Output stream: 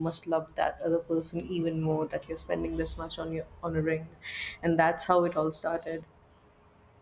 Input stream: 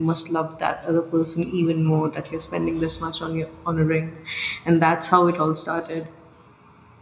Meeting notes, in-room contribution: none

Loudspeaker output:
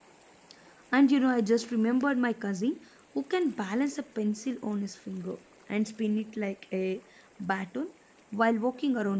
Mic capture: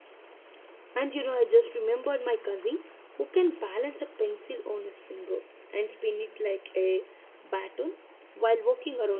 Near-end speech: none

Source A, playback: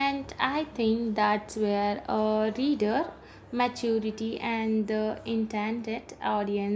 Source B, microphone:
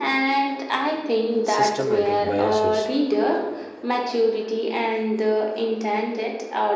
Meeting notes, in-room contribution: present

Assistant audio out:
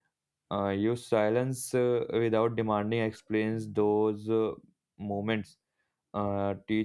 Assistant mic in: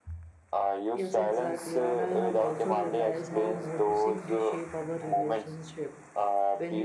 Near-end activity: present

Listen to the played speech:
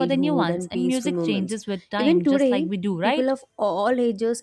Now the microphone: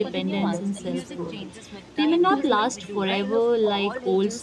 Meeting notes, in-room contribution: present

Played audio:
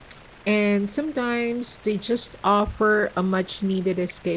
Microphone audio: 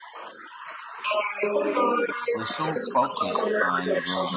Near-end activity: present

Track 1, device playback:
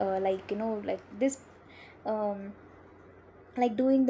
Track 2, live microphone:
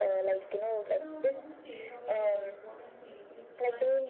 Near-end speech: present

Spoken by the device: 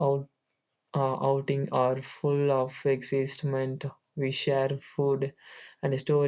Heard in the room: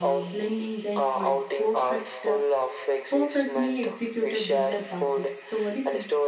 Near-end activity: present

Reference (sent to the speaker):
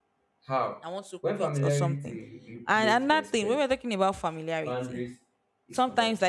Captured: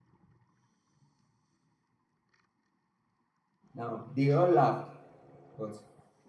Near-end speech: present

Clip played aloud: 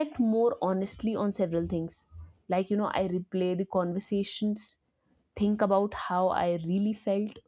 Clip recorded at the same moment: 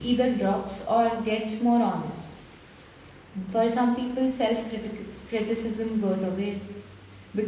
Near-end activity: present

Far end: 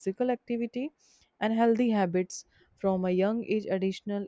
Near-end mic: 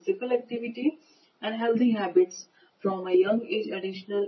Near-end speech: none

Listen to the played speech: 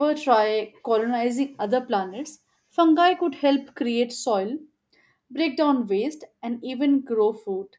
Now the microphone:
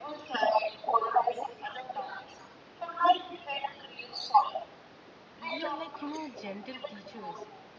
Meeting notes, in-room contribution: present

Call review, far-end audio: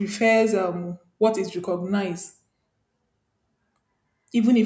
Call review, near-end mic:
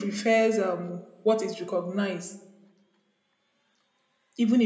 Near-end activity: none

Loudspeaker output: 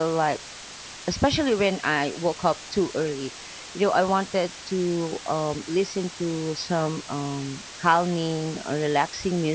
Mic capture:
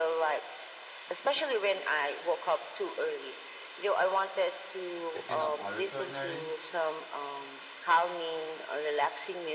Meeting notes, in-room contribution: present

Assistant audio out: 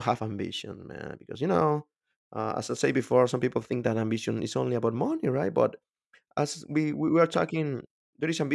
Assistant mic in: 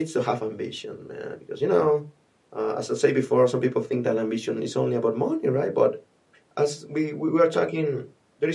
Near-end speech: none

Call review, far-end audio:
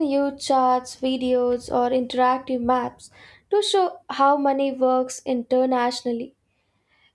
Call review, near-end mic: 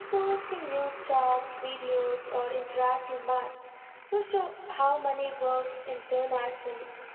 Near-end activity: none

